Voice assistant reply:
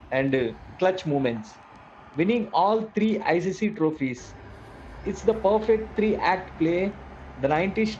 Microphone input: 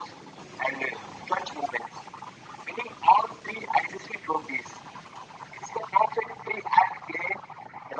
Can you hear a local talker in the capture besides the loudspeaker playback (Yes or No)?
No